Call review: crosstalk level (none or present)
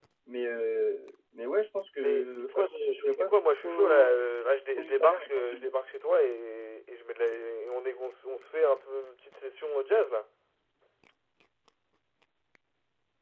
present